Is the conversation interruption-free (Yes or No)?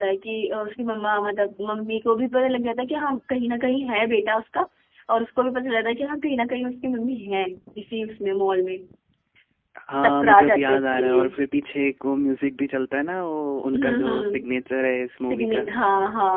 No